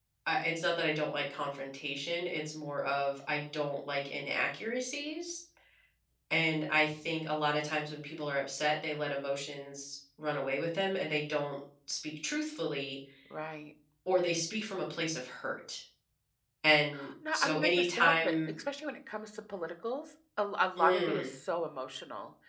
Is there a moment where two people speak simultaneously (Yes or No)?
Yes